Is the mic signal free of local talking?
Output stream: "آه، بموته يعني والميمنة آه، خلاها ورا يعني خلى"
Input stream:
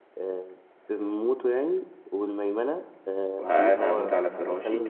No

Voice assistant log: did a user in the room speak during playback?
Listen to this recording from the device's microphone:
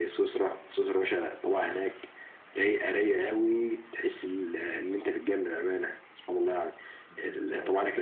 Yes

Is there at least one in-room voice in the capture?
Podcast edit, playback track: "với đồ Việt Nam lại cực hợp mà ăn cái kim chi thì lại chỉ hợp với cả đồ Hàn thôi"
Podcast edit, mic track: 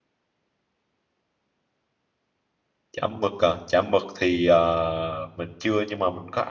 Yes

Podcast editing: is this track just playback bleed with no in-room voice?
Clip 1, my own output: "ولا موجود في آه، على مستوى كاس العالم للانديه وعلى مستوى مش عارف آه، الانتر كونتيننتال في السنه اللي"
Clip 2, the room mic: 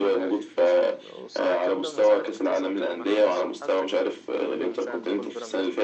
No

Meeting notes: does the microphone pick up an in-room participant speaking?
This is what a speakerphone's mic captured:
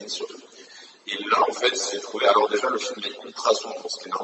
No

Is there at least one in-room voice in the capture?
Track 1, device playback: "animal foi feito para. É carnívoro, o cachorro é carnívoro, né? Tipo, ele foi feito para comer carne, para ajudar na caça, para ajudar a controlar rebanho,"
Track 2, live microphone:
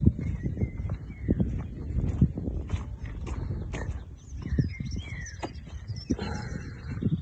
No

